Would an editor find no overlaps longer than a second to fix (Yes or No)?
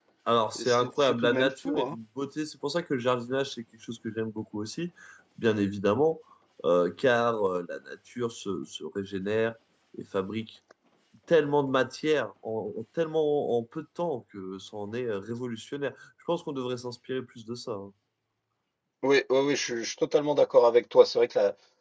No